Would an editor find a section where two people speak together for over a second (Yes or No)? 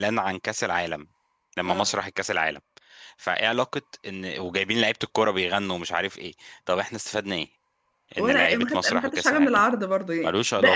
Yes